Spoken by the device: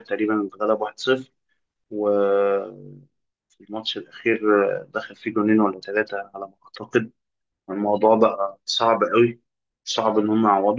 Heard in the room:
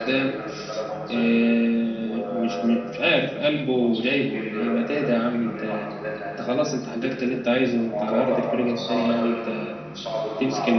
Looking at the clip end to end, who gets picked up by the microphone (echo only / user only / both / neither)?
both